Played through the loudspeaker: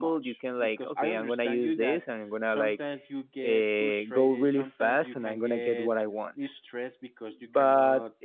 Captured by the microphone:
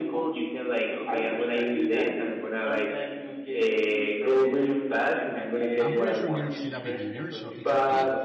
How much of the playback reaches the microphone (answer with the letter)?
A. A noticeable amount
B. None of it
A